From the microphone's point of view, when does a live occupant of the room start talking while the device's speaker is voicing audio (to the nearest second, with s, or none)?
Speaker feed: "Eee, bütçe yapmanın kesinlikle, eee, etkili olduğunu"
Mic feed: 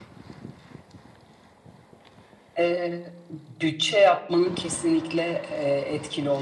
none